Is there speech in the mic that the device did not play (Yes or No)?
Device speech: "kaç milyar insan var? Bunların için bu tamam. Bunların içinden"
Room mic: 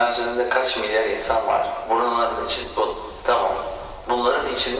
No